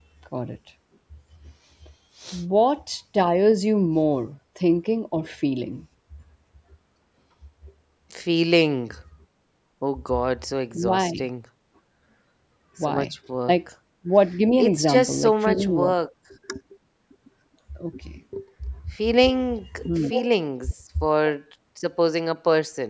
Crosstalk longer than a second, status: present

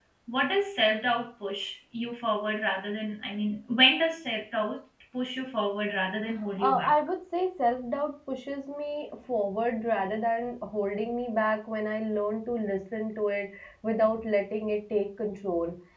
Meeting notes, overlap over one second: none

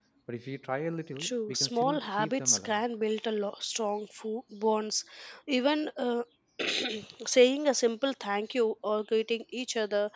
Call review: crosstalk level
present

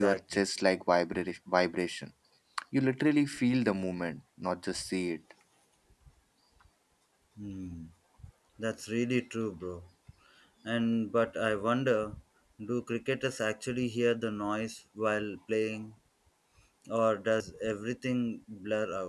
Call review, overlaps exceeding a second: none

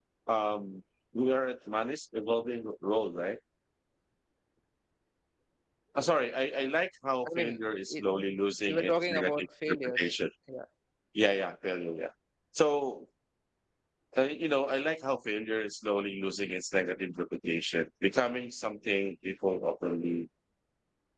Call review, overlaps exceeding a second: present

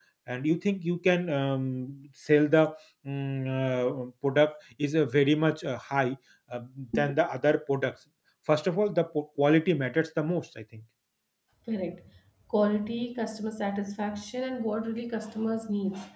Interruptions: none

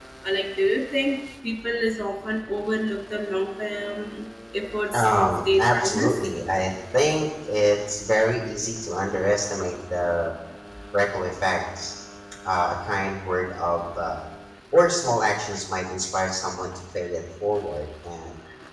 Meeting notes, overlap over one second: present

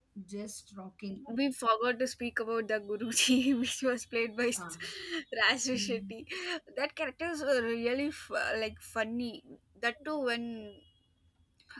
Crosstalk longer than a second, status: none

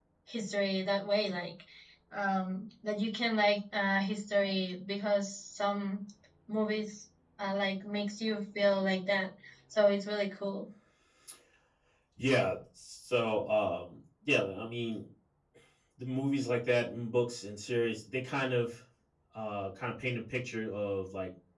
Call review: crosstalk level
none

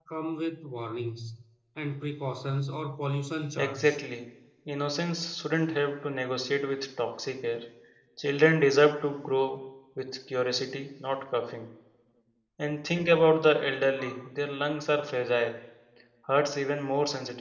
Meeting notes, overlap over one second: none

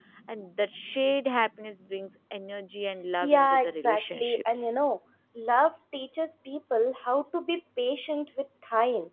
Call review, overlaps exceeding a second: present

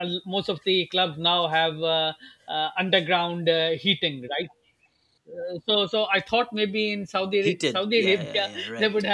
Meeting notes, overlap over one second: present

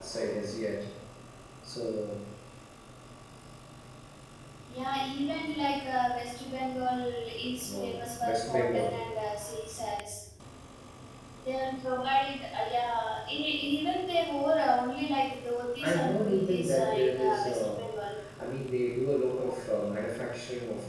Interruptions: present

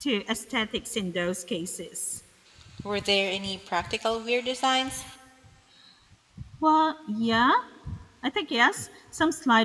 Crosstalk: none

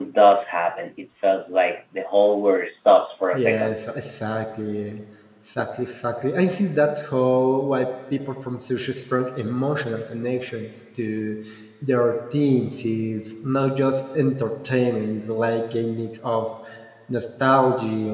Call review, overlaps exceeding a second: none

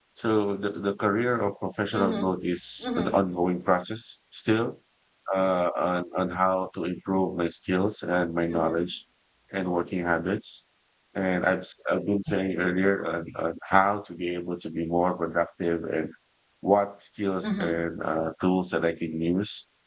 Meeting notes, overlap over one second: none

